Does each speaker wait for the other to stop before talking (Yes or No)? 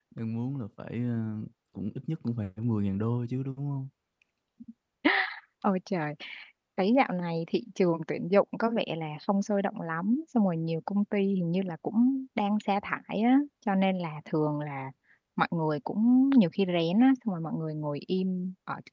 Yes